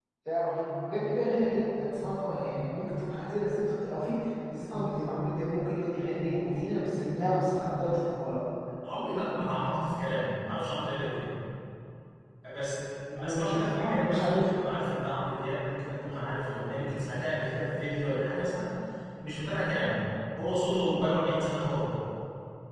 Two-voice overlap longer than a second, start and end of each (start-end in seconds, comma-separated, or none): 13.2-14.5